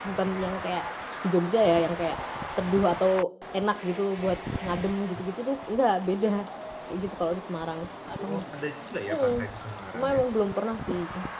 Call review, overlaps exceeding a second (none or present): none